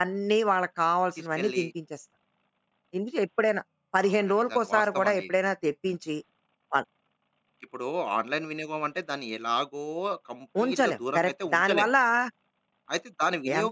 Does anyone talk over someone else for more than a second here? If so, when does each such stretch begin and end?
4.1-5.3, 10.6-11.9

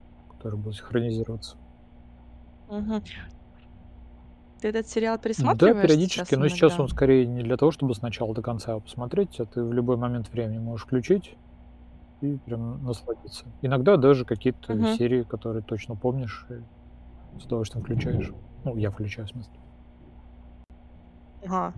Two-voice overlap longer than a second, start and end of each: 5.4-6.9

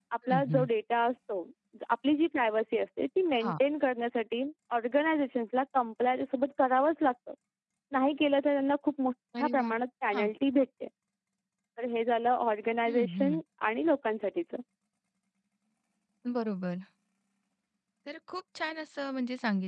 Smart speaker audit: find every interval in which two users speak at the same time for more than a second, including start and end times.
none

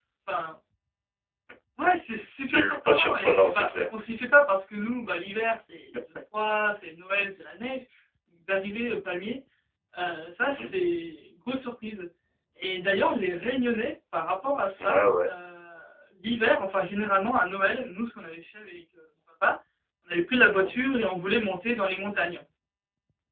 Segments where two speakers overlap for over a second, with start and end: 2.5-3.8

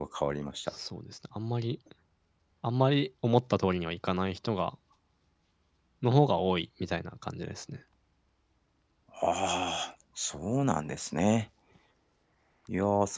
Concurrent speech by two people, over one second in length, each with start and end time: none

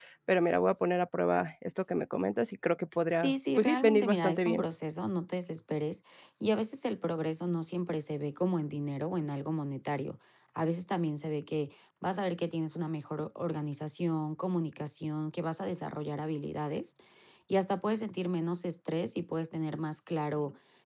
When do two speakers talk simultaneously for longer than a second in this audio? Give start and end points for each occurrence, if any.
3.1-4.7

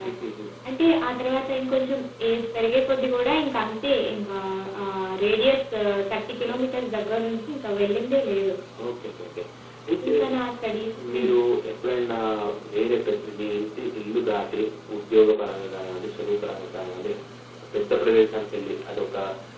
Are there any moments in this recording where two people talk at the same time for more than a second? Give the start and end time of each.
none

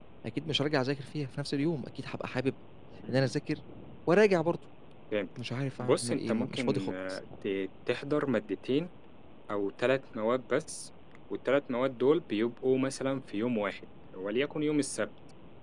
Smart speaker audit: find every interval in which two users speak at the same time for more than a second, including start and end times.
5.8-7.2

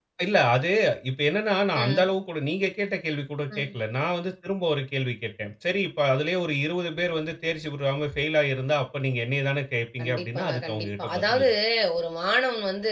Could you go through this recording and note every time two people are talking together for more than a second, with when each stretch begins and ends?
10.0-11.5

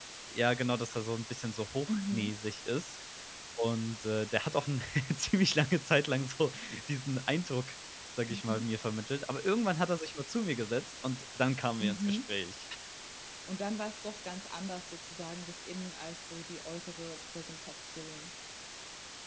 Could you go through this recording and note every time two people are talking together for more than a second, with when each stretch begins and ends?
none

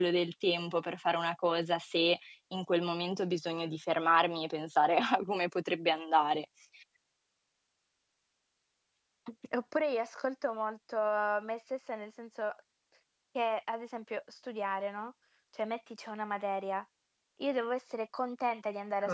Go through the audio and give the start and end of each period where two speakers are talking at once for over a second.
none

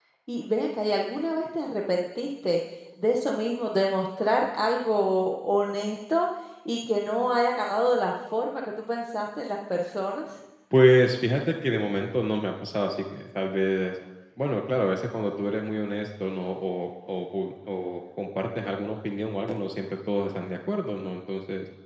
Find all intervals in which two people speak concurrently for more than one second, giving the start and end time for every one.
none

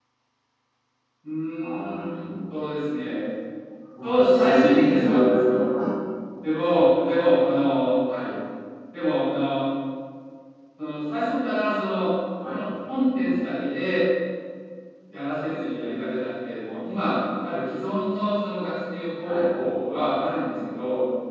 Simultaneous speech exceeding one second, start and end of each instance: 4.0-5.6

